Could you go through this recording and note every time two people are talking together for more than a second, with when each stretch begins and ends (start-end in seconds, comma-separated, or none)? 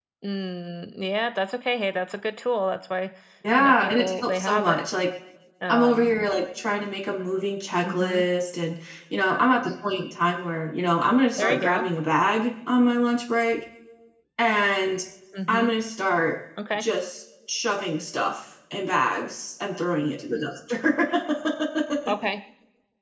3.6-4.8